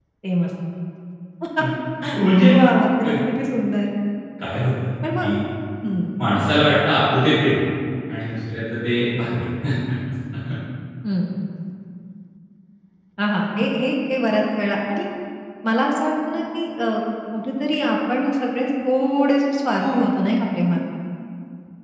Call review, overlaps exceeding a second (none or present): none